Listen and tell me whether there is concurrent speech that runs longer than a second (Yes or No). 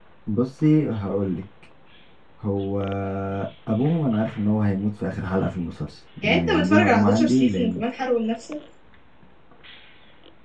Yes